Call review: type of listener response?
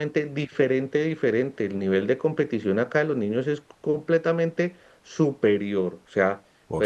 listening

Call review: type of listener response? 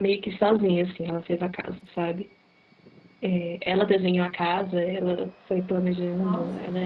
listening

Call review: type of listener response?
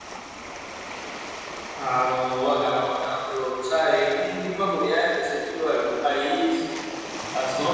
taking over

